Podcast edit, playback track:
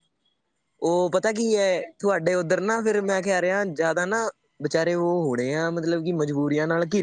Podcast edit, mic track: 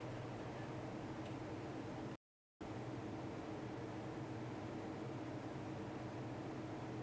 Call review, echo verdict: none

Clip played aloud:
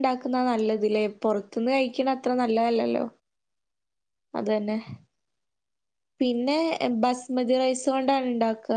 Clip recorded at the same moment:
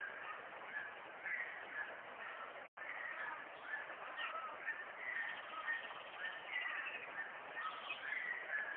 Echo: none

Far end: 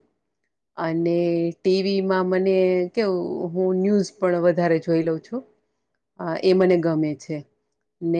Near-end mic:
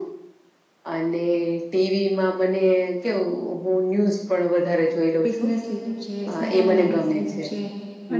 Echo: present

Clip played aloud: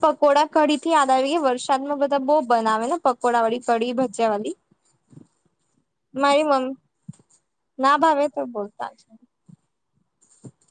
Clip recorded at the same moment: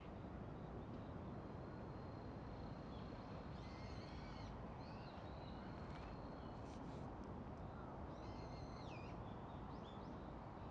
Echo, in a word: none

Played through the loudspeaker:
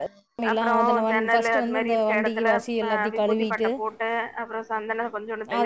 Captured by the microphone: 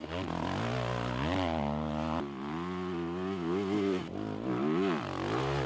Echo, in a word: none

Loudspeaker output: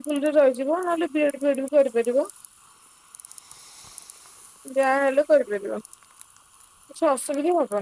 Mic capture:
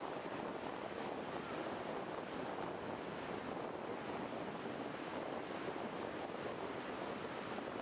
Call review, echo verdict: none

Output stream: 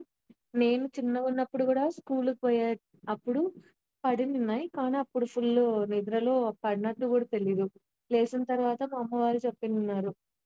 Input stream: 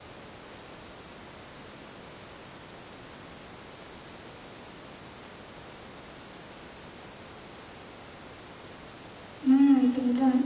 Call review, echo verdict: none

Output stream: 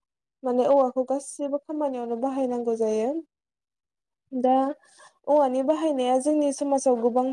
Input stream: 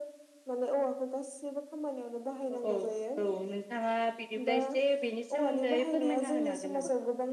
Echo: present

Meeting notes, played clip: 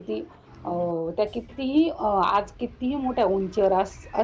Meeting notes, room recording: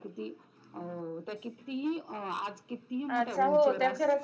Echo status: present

